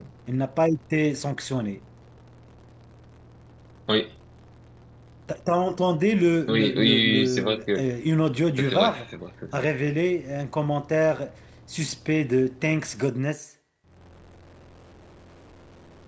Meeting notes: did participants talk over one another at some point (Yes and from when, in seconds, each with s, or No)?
Yes, from 6.5 s